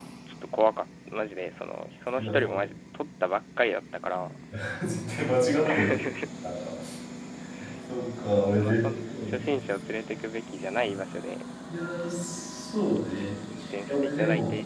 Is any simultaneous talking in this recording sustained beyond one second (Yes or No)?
Yes